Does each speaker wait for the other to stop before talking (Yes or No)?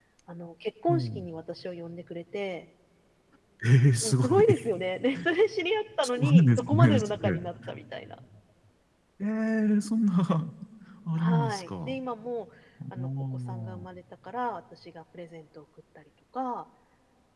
No